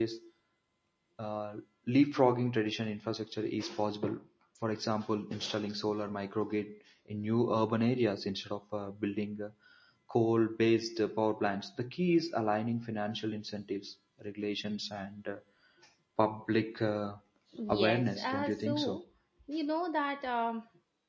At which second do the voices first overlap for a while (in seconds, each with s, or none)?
17.8 s